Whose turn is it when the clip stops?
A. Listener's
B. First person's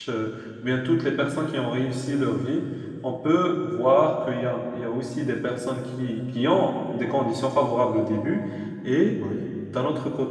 B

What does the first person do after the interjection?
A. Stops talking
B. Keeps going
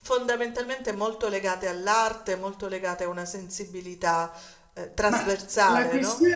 A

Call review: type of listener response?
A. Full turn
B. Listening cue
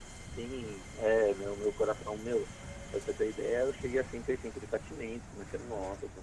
B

